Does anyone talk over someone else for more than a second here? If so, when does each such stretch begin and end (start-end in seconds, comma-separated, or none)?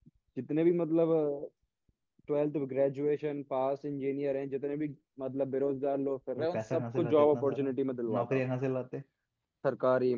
6.4-7.7